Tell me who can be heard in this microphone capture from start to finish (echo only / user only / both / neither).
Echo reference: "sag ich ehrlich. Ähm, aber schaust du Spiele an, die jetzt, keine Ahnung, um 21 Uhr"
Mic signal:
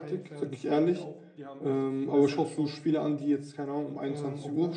both